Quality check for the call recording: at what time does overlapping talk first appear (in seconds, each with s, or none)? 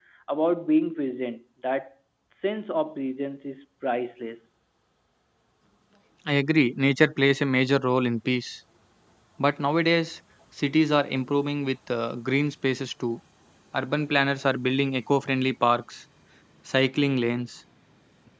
none